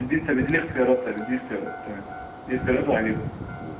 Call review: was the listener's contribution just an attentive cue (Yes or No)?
No